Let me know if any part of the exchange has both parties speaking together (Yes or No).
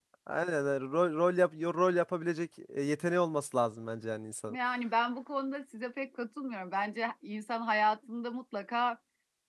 No